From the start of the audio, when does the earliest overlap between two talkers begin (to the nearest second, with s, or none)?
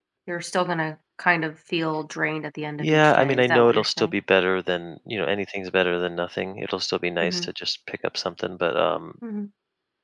3 s